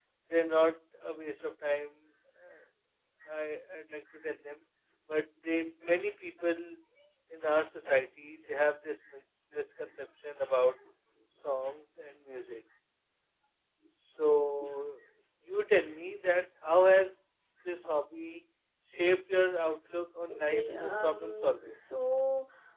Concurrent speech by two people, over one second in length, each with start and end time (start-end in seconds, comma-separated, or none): 20.3-21.6